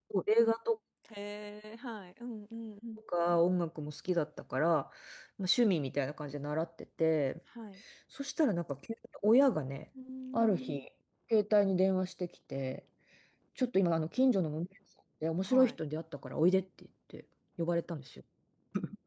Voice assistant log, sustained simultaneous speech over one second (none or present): none